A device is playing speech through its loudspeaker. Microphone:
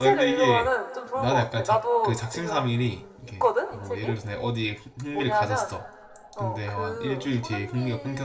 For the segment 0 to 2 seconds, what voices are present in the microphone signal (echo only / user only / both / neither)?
both